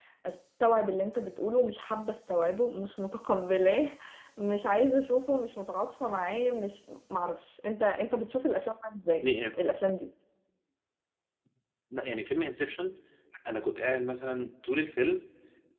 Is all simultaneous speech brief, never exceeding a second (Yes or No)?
Yes